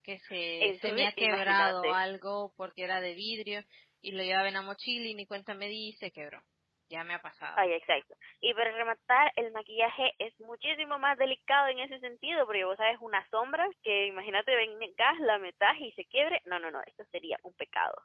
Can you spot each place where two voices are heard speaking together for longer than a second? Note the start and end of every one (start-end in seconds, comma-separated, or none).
0.6-1.9